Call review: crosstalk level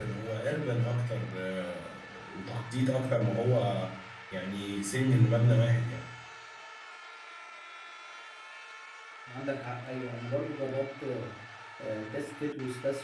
none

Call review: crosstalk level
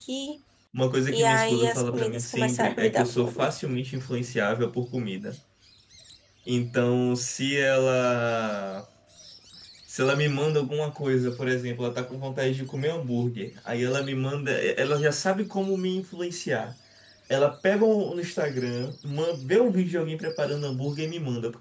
present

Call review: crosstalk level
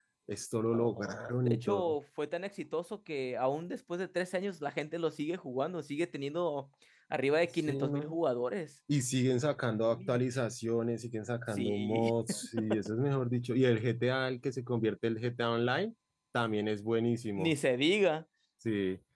present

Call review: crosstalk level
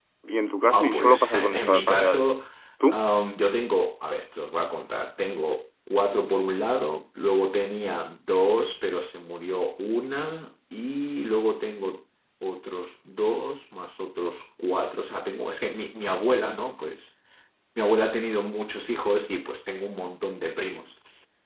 present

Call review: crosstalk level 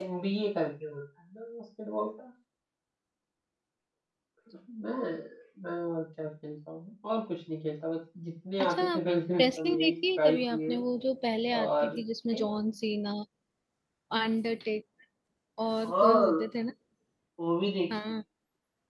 present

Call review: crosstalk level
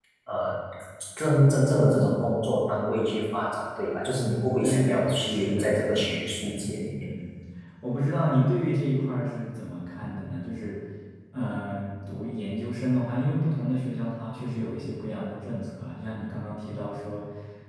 present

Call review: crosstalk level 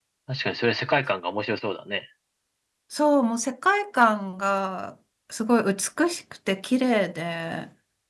none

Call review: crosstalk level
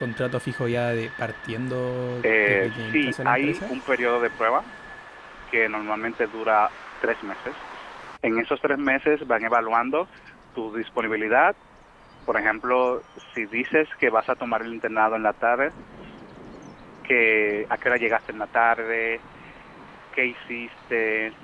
present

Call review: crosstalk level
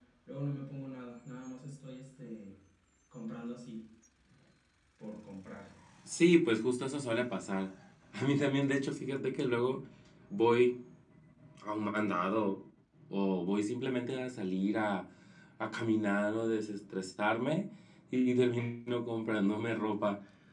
none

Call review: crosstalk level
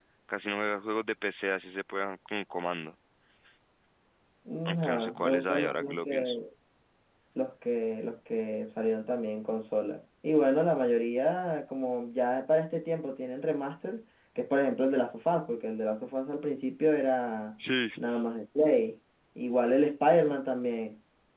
present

